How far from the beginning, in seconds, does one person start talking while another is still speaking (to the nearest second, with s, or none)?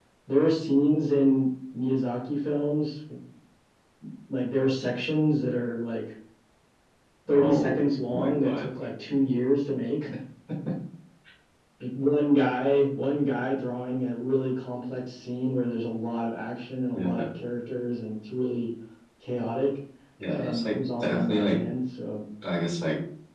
7 s